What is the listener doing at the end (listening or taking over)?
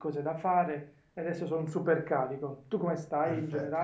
taking over